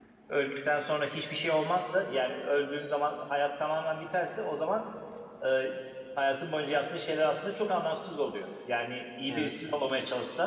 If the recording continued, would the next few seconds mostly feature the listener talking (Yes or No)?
No